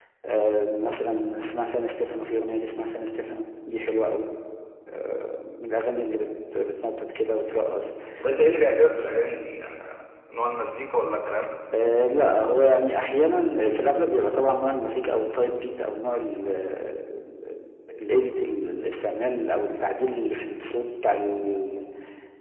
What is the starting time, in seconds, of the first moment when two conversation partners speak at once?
none

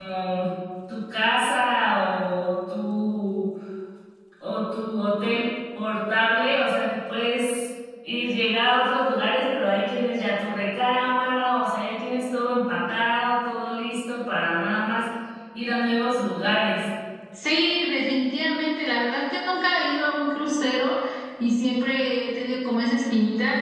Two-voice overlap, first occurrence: none

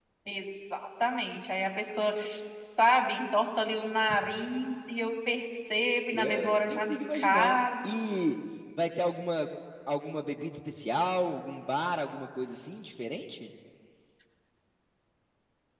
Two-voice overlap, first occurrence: 6.1 s

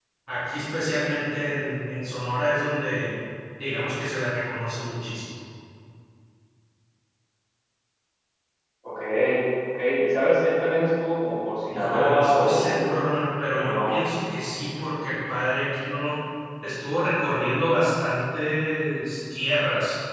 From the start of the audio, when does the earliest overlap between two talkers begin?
11.7 s

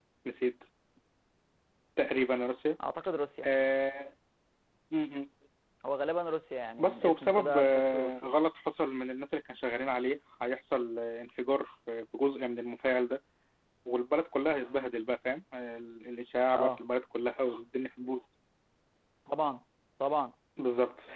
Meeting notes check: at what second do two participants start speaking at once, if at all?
6.8 s

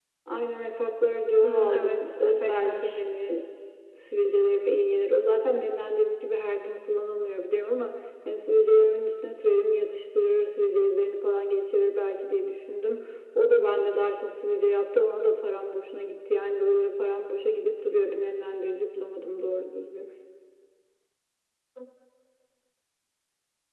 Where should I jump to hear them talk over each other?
1.4 s

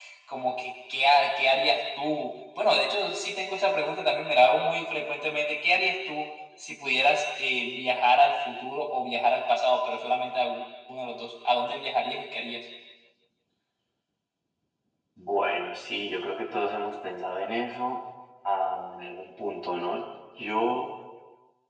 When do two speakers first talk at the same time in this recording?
none

